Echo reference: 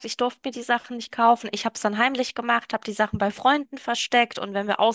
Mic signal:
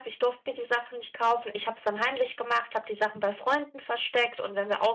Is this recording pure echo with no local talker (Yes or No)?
Yes